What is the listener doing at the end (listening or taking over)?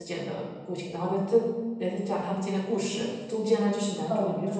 listening